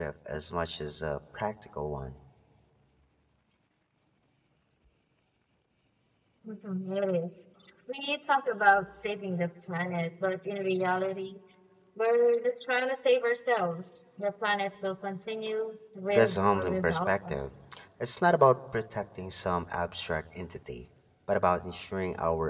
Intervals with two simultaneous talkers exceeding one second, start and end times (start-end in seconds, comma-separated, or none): 16.1-17.4